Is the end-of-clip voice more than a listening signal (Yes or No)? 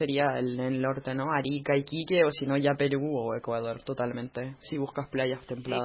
Yes